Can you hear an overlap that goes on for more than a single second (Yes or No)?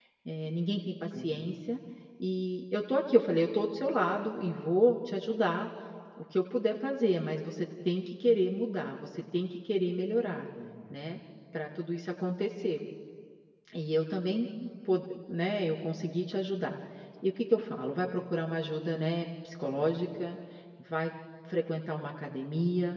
No